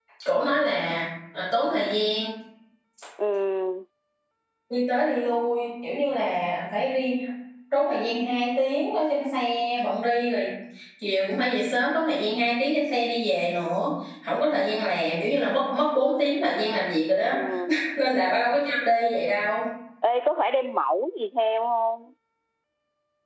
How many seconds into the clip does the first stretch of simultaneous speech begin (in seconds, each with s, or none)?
none